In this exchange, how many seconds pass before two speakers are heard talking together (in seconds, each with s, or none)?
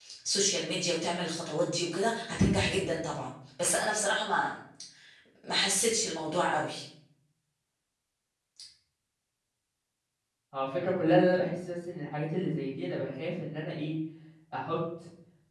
none